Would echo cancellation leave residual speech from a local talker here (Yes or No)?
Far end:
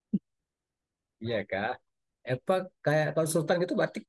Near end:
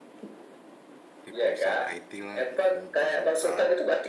Yes